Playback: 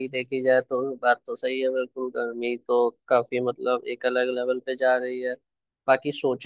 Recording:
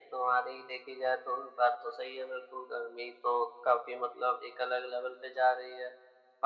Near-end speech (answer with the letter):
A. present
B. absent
B